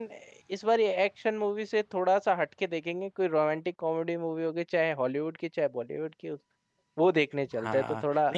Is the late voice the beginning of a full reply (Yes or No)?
Yes